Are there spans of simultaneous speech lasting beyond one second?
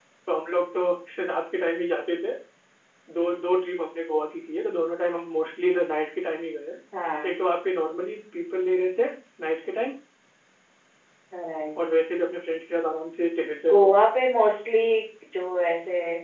No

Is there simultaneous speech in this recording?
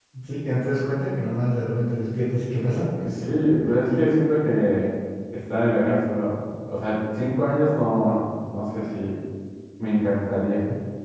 No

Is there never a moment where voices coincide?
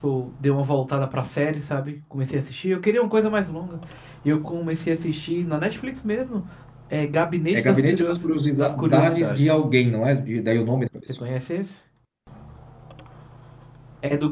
No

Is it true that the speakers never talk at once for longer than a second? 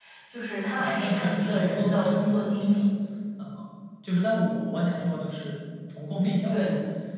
No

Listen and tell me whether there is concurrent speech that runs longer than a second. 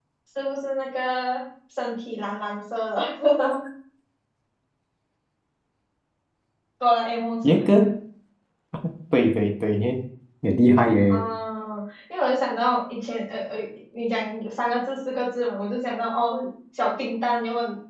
No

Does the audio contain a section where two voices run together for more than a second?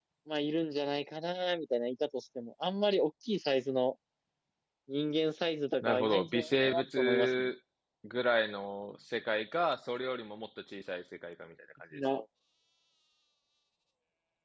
Yes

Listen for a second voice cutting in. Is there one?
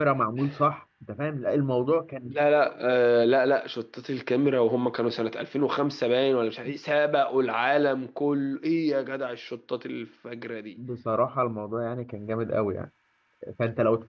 No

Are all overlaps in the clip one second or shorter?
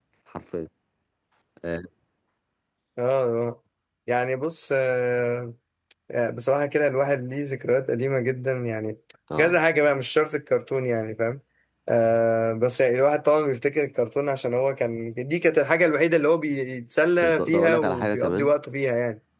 No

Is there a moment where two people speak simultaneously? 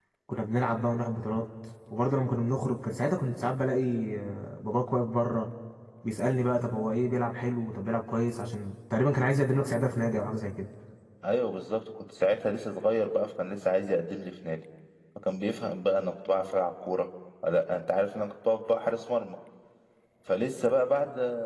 No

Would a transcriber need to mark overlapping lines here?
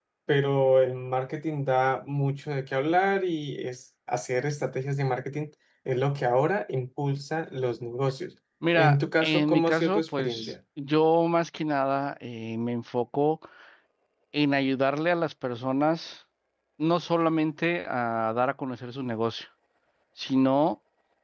Yes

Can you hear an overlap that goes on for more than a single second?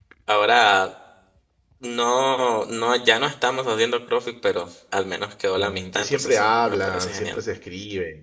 Yes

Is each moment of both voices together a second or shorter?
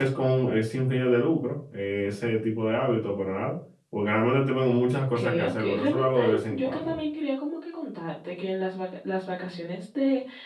No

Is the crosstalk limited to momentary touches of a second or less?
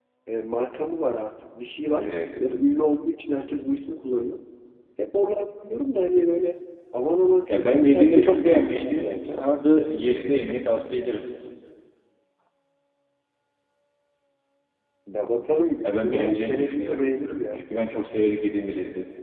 No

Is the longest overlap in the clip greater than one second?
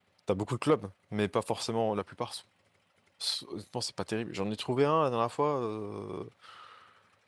No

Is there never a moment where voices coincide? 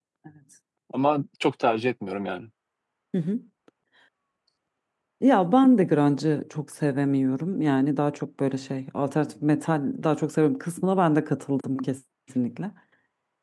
Yes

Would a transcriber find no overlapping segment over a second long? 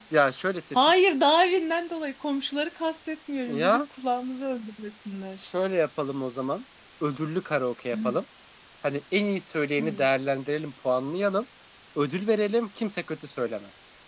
Yes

